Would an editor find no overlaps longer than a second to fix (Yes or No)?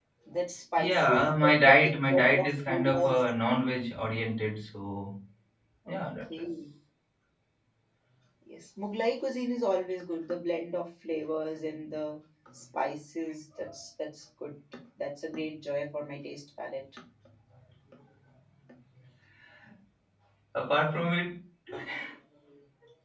No